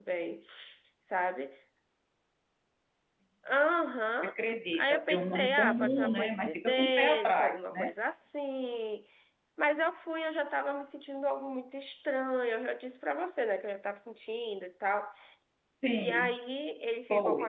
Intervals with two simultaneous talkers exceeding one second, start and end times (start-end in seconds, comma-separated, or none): 4.7-7.9